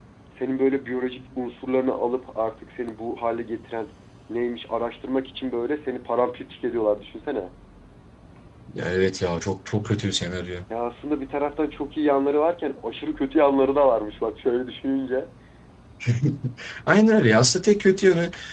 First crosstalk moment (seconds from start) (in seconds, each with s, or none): none